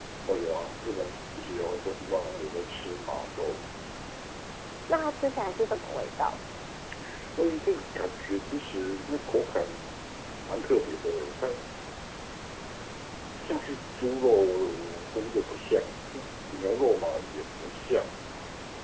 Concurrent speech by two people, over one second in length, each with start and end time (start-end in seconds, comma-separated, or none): none